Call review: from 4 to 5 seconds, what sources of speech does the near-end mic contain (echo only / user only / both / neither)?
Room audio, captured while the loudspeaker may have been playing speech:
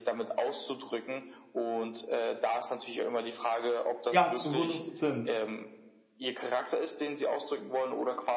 both